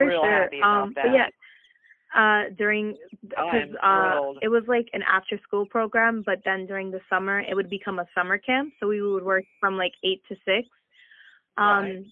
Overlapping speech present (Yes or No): Yes